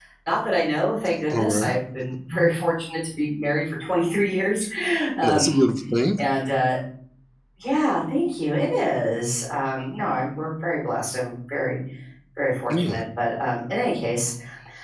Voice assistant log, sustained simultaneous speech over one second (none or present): none